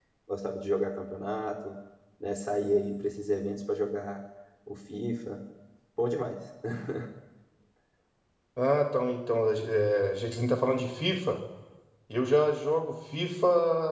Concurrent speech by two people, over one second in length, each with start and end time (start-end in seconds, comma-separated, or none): none